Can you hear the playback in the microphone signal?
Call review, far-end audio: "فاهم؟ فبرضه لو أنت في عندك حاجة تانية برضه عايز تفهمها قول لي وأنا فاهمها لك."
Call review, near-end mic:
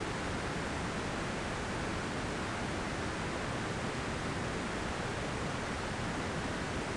No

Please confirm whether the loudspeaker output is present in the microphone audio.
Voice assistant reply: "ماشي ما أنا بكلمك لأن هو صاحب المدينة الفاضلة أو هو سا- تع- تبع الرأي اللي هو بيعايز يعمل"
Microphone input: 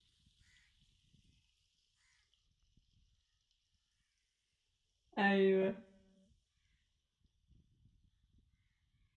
No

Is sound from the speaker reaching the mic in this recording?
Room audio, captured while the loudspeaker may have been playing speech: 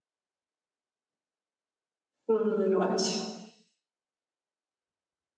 No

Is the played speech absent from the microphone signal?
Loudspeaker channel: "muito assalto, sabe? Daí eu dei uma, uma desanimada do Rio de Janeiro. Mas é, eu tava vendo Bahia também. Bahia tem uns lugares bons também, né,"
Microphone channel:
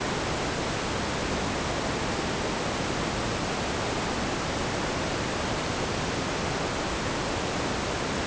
Yes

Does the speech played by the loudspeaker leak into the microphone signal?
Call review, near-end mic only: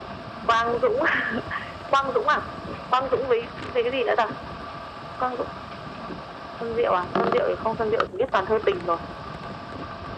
Yes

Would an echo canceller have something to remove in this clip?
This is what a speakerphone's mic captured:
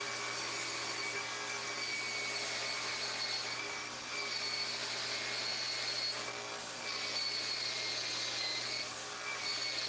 No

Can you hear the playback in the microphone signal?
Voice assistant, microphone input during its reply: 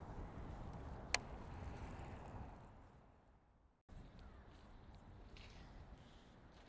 No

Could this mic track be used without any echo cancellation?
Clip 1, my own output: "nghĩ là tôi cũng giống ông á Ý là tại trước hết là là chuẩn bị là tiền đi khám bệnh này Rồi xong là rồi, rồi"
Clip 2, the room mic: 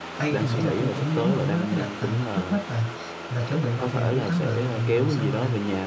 No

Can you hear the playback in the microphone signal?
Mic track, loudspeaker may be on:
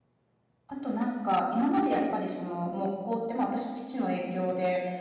No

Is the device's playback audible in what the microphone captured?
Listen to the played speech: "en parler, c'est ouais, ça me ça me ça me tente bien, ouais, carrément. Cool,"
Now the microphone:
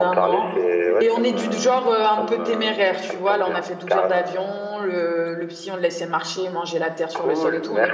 Yes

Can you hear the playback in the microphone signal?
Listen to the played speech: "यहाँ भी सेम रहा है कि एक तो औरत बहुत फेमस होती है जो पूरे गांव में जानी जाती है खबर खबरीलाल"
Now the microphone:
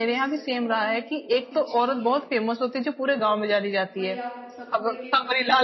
Yes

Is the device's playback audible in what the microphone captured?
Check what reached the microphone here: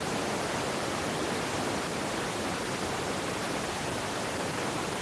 No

